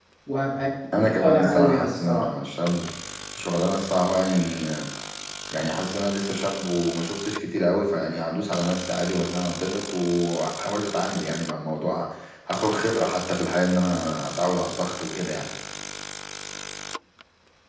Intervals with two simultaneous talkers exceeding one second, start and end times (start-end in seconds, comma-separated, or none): 1.0-2.3